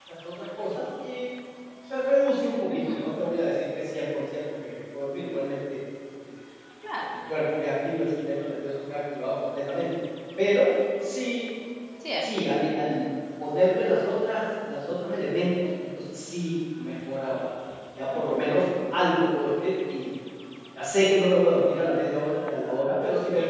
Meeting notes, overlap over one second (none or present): none